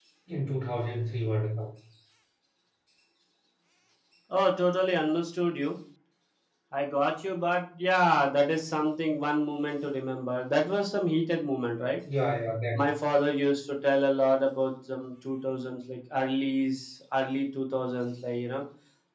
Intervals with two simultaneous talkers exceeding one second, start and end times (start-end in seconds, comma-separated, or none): none